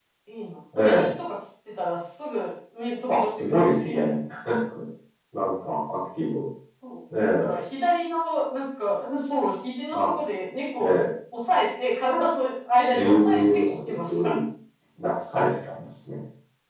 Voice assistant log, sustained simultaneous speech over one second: present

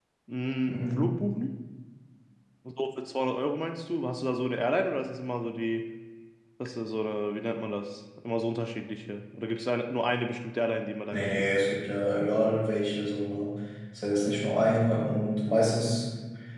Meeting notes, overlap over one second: none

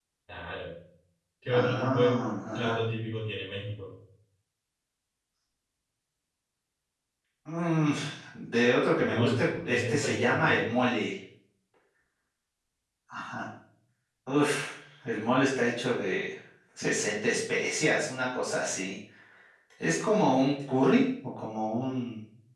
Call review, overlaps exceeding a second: present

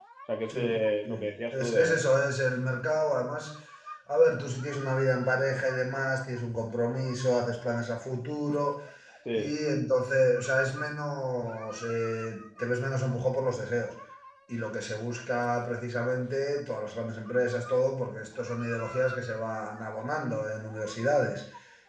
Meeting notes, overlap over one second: present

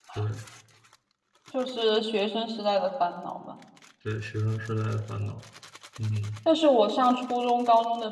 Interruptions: none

